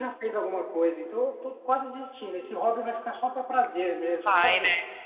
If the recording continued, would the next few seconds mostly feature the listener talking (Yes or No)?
Yes